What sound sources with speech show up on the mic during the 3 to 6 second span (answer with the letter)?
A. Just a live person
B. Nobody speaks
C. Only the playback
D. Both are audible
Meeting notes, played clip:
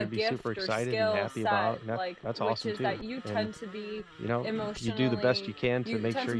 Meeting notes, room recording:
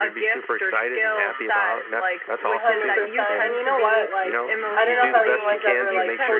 D